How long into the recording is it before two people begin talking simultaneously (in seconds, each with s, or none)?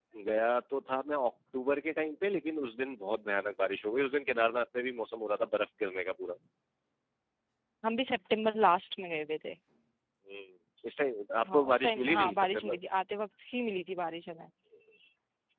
11.4 s